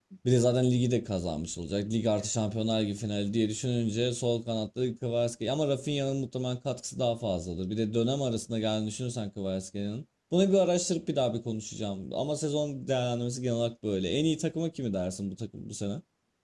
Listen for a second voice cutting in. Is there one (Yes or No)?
No